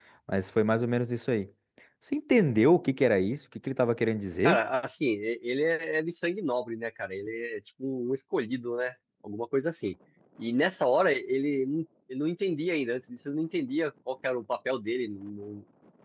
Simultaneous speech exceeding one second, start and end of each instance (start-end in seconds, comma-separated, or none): none